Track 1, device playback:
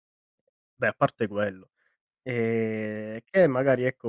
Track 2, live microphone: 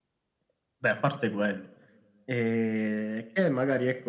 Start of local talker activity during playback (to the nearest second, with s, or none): none